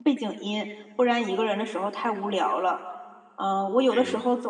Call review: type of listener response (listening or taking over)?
listening